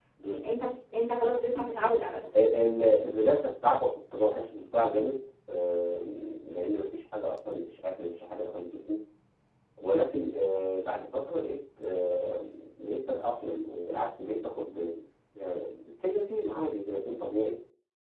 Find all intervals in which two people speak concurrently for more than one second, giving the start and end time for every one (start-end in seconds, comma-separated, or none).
none